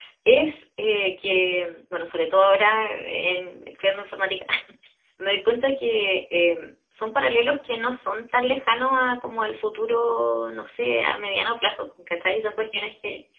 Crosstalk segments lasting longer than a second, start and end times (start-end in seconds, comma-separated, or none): none